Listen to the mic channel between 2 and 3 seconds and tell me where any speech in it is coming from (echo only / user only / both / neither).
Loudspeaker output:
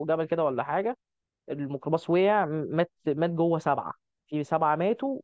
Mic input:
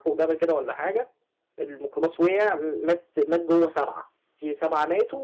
echo only